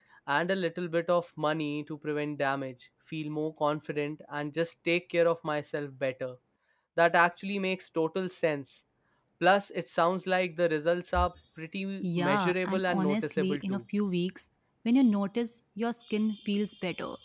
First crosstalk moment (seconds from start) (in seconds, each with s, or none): 12.0 s